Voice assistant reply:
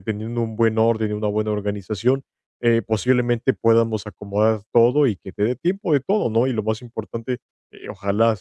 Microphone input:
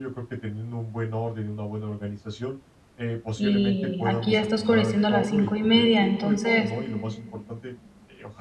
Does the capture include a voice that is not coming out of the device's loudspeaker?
Yes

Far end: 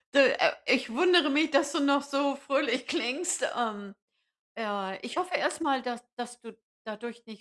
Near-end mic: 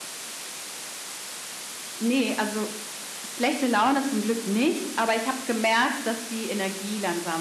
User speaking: Yes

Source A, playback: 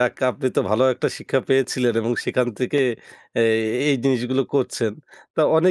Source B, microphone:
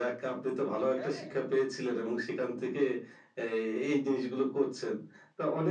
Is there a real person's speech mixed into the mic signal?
Yes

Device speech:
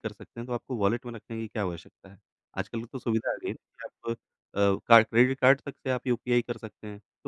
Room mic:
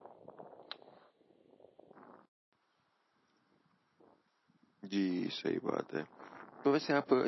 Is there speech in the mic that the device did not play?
Yes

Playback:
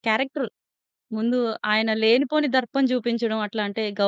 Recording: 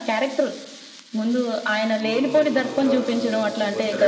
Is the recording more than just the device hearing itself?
Yes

